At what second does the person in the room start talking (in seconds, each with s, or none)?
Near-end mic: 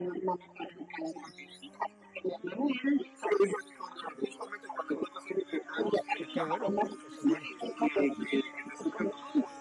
6.2 s